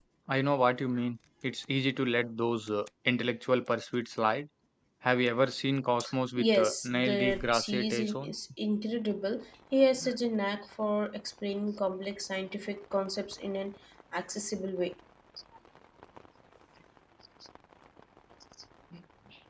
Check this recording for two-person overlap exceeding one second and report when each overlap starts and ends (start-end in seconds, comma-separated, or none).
6.4-8.3